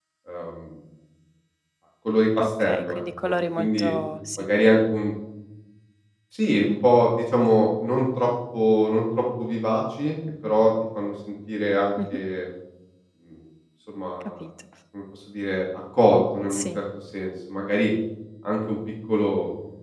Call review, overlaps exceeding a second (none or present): present